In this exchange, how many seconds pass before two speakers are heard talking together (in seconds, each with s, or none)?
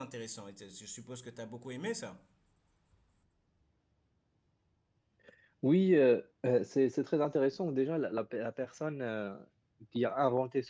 none